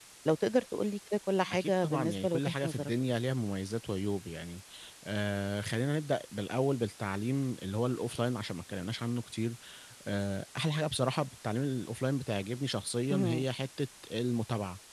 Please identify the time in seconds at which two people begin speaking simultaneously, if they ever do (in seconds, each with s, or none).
1.5 s